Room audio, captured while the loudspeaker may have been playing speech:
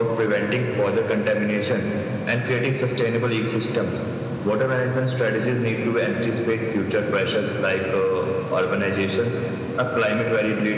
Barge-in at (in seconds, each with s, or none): none